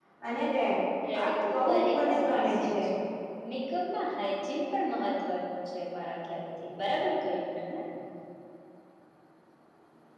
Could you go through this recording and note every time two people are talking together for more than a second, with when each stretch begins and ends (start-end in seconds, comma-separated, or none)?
1.2-2.7